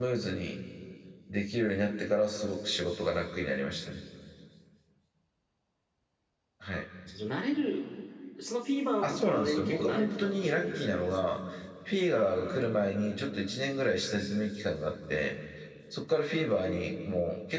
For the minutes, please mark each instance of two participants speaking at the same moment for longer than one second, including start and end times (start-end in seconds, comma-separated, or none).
9.0-11.3